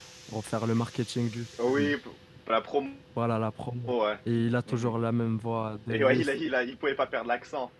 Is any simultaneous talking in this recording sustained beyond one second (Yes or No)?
No